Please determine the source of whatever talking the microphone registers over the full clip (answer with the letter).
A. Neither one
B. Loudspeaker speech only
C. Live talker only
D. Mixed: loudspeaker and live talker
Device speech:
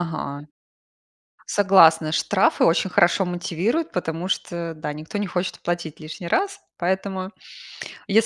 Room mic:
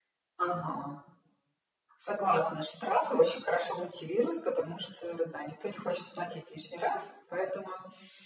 B